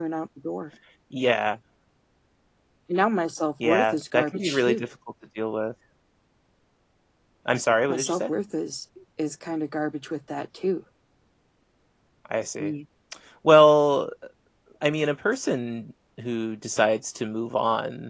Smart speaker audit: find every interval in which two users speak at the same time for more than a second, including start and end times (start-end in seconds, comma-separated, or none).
3.6-4.8